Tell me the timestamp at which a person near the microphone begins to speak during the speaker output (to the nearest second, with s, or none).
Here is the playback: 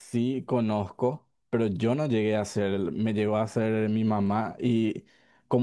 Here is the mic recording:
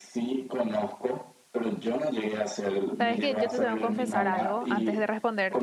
3 s